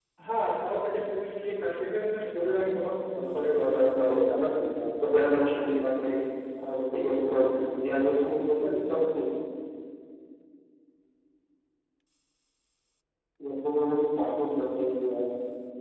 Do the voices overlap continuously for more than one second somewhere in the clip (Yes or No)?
Yes